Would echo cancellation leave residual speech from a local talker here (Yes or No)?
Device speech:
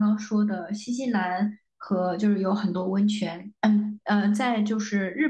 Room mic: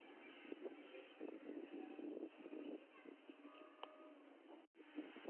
No